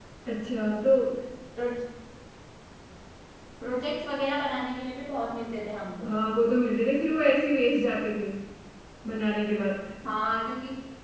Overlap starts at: none

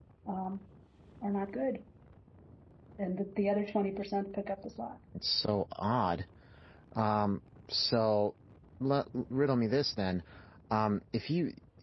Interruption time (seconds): none

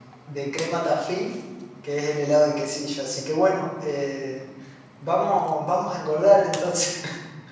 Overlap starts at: none

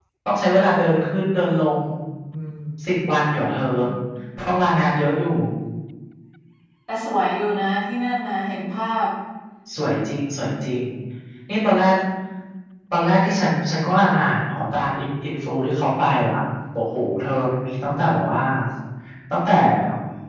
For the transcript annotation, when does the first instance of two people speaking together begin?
none

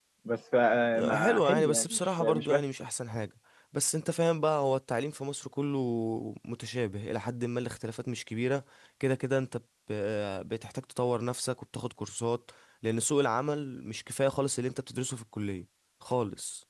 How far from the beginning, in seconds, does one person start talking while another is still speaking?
1 s

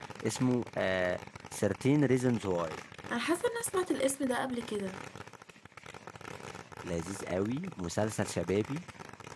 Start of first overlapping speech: none

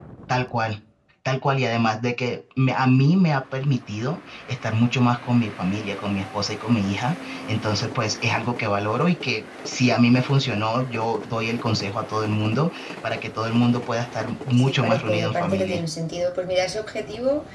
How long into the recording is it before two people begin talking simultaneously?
15 s

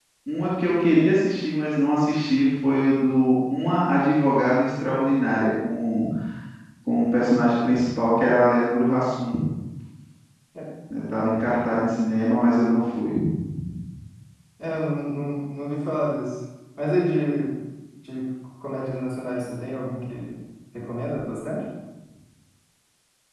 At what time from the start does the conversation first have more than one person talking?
none

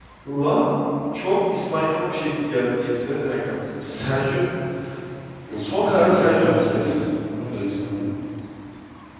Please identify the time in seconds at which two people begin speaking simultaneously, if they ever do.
6 s

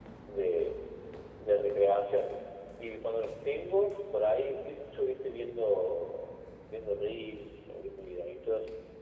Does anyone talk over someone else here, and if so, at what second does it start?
none

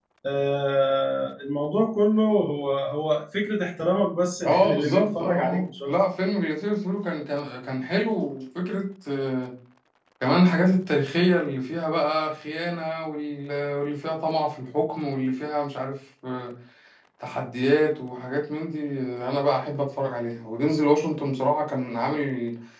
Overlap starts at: 4 s

